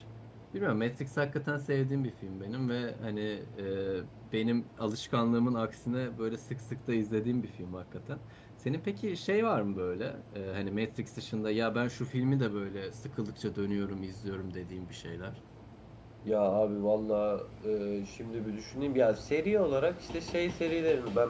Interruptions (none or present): none